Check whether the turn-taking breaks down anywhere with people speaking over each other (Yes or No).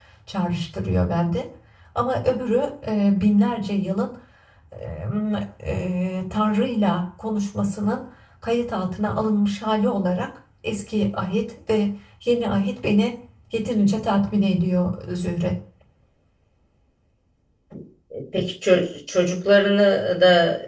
No